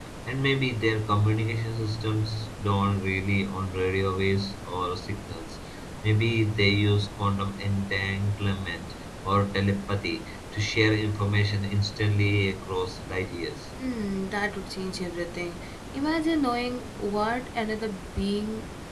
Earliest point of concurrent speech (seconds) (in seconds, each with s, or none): none